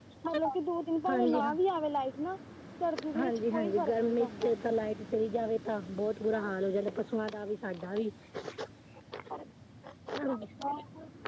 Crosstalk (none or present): present